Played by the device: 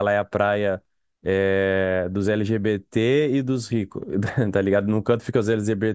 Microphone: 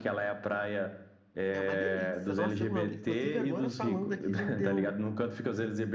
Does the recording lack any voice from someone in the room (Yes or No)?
No